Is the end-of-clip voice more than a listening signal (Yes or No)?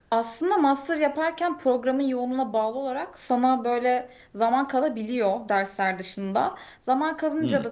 No